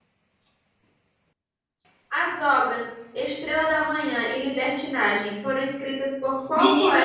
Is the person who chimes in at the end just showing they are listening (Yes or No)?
No